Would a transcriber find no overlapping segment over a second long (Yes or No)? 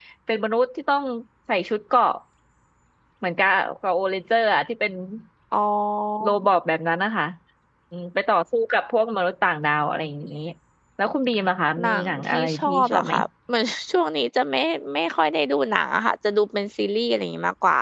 No